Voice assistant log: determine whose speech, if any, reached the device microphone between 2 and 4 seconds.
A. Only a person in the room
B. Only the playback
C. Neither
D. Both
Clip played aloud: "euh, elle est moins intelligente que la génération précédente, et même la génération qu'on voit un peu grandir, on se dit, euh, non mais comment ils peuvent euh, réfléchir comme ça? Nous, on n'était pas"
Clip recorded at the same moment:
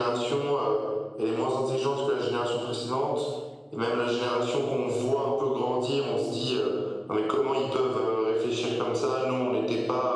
B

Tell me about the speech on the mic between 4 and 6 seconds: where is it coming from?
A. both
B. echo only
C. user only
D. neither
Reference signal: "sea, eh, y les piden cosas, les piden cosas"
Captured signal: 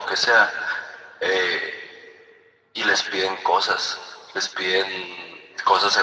B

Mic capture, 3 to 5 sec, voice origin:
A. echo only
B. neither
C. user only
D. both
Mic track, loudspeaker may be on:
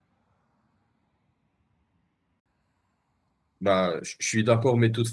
C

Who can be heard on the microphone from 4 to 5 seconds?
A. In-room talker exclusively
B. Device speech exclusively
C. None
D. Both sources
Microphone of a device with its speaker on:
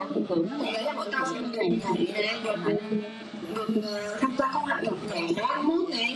B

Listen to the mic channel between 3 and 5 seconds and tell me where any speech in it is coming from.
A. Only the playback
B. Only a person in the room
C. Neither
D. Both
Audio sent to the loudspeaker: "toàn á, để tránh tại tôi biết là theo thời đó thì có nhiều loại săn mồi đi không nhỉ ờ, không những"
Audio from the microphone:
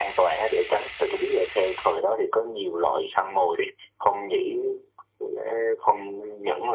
A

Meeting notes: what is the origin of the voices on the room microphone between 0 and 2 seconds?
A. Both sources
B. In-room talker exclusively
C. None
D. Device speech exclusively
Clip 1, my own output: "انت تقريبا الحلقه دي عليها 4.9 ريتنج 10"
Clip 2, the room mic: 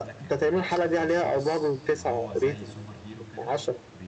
A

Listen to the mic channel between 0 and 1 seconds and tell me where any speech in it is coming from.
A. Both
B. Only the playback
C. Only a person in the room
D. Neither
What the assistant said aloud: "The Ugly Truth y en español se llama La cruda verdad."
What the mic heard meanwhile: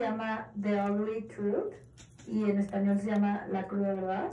B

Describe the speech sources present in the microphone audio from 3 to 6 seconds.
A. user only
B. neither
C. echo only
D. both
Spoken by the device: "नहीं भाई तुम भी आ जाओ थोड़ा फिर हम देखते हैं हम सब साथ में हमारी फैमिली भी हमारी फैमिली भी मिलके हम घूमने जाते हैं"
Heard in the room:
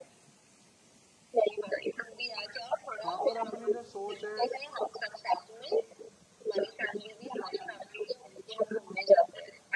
D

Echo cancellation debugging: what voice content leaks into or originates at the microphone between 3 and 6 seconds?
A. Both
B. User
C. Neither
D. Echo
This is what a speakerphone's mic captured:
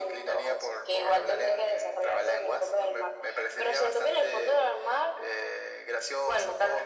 D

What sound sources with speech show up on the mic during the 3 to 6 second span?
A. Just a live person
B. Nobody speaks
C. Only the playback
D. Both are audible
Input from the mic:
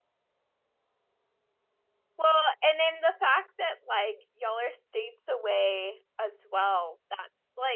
A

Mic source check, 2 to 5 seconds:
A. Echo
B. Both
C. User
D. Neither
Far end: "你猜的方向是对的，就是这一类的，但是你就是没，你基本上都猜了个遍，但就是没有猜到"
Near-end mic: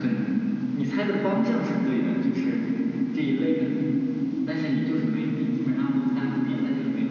A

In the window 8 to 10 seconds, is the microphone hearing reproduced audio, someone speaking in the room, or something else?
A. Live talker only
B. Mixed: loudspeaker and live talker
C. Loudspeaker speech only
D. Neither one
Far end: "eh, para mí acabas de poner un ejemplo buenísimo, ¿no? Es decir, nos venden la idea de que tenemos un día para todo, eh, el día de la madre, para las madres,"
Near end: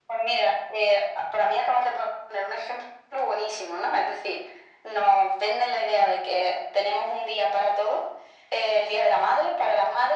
C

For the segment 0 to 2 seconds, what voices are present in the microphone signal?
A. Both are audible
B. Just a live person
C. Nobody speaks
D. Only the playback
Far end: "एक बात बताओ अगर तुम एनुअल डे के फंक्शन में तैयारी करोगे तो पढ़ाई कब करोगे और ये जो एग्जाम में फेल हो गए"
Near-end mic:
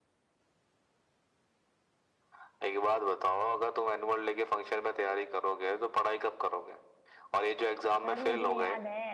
C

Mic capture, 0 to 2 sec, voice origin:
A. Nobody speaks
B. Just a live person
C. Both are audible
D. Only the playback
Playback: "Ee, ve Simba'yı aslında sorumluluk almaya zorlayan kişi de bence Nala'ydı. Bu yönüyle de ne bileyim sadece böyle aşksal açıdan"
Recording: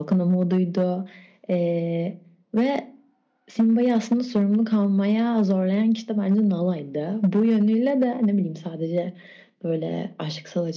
D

